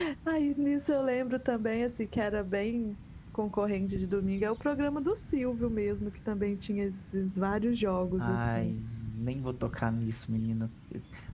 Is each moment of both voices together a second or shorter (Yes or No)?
Yes